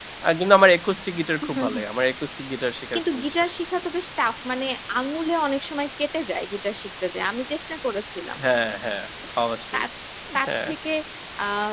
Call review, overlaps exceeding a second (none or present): none